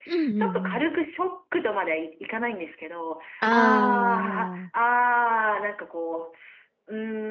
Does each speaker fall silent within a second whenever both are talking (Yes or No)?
No